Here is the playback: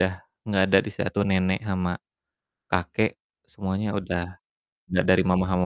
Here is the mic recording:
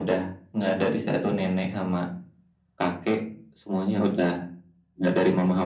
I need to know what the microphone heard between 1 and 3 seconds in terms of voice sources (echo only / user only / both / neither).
echo only